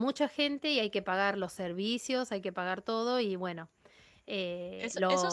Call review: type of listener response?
taking over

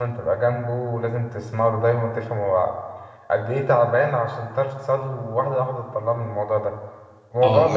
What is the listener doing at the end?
taking over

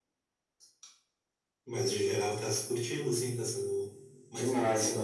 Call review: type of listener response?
taking over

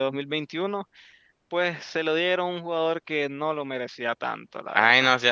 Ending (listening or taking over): taking over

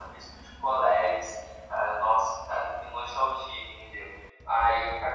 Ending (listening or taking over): listening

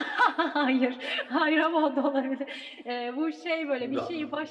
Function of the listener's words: listening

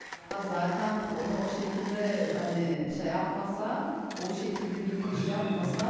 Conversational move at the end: listening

